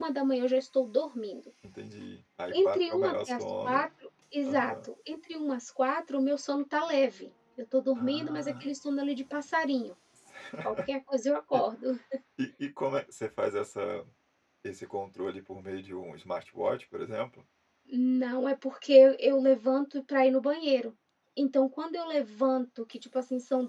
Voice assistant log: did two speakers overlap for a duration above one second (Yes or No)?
Yes